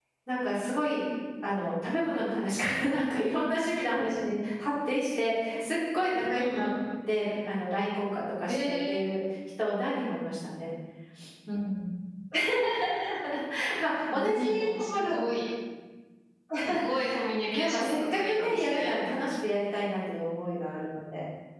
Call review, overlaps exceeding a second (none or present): present